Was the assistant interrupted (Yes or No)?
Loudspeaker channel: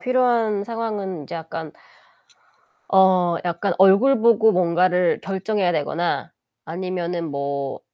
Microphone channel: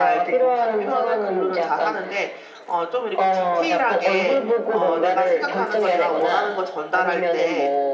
Yes